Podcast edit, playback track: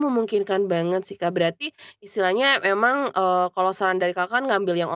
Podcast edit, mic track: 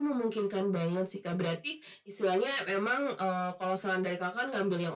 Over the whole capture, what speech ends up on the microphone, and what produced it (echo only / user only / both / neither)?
echo only